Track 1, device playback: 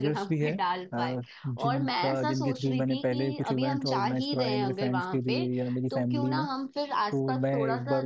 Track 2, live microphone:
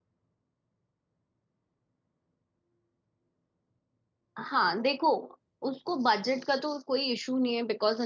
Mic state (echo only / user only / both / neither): user only